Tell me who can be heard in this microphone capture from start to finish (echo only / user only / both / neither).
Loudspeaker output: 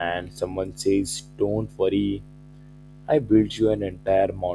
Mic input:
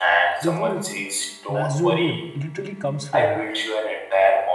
both